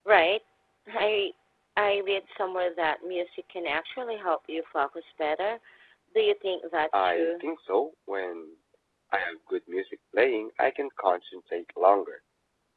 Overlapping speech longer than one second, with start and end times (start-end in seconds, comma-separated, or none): none